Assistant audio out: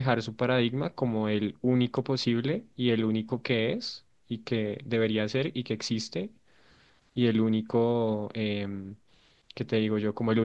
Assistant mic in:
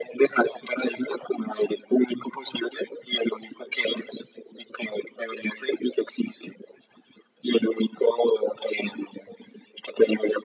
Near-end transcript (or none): none